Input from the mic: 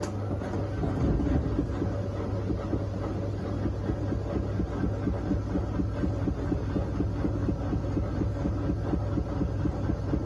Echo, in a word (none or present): none